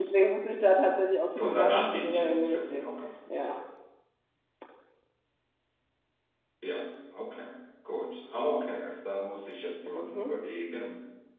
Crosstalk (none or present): present